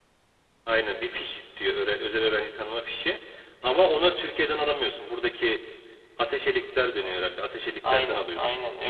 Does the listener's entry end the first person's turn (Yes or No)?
Yes